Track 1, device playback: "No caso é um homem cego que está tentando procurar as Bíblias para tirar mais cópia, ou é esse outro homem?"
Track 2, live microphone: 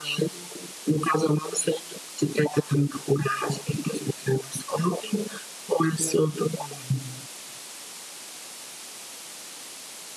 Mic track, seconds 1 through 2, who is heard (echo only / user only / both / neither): echo only